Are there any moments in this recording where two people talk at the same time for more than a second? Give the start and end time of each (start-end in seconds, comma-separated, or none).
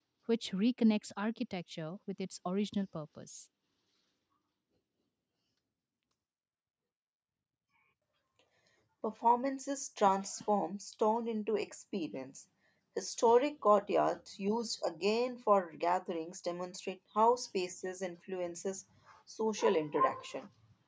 none